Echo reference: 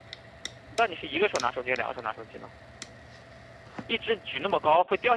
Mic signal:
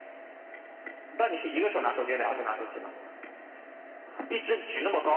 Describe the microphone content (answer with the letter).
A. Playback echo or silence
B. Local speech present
A